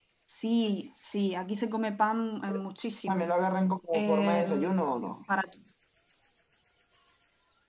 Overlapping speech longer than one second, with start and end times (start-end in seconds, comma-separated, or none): 3.9-5.1